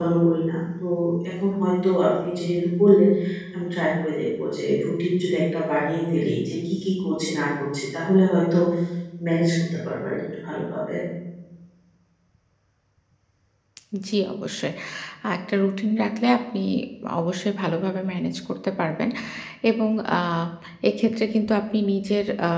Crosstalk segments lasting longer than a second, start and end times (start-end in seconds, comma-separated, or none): none